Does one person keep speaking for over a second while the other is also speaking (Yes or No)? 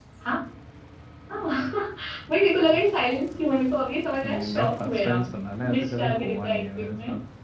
Yes